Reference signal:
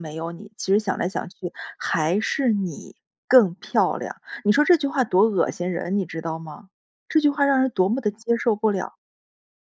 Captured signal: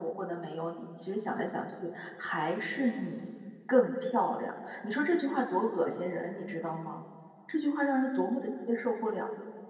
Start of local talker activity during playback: none

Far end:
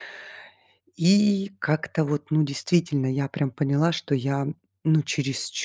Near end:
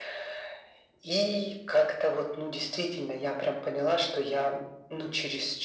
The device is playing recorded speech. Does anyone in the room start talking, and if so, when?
none

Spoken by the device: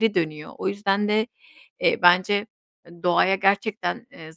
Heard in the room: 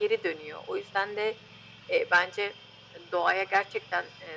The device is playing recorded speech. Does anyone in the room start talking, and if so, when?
none

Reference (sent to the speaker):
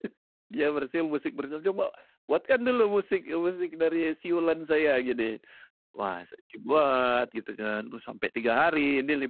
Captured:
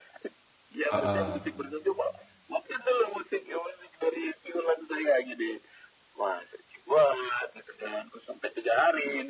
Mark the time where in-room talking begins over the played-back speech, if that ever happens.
0.9 s

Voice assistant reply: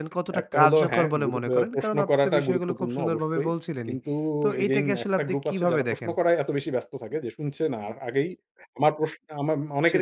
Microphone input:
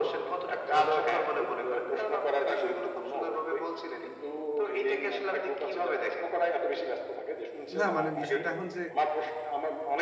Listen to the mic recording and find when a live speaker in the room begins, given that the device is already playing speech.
7.8 s

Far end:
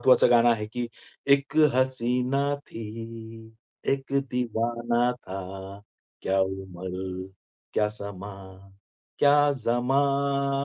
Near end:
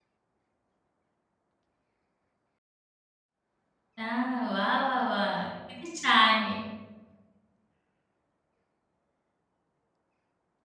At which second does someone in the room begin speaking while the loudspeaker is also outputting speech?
4.0 s

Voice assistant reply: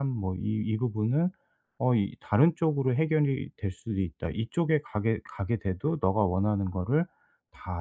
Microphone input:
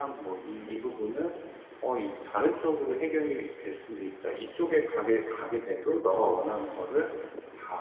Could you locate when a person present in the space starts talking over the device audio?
none

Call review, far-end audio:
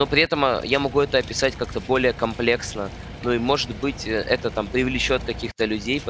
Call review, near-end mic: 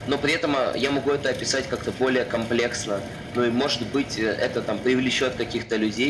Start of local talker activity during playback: none

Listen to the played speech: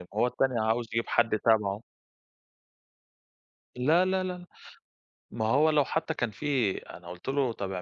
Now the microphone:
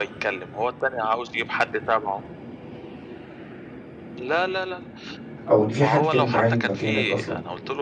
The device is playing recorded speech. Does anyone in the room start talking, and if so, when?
5.5 s

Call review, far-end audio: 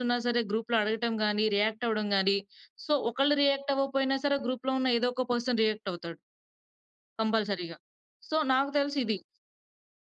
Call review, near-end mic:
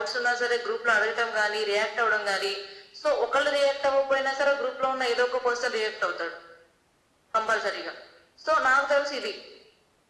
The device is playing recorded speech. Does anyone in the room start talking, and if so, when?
none

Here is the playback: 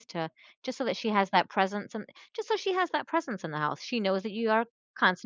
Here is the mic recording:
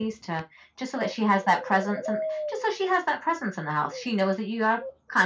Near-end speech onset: none

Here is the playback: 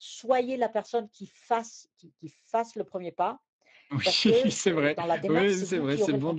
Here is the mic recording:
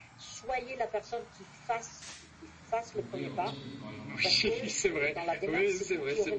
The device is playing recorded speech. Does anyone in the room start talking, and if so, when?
2.9 s

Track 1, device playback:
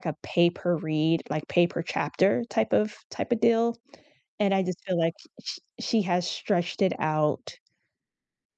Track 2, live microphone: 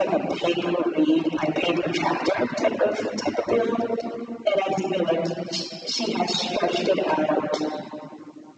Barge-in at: none

